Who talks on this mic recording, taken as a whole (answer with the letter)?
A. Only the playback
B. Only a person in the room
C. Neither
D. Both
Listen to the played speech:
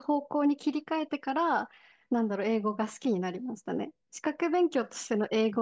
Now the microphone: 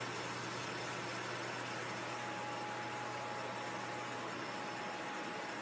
C